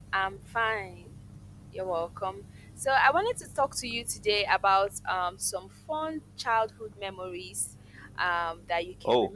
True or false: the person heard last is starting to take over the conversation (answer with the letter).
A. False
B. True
A